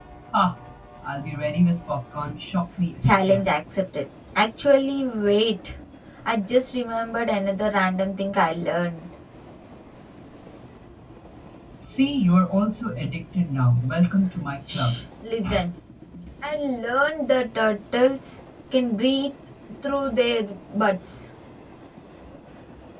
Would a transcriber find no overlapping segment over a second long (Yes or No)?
Yes